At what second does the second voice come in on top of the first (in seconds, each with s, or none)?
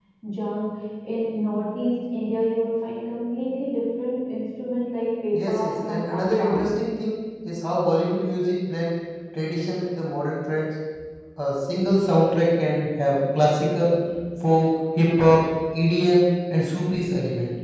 5.3 s